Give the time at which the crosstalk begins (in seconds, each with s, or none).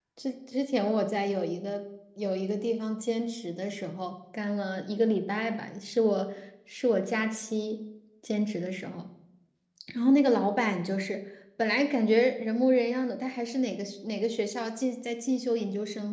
none